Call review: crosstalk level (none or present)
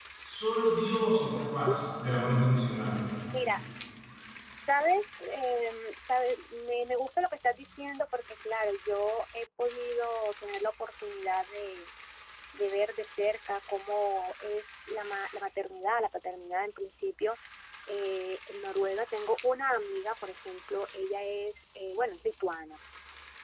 none